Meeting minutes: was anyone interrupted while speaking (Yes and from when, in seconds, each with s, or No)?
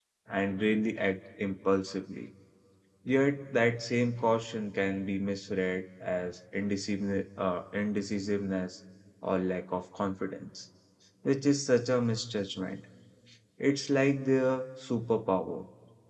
No